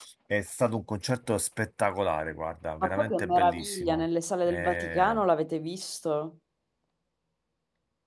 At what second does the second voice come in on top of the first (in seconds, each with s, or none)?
2.8 s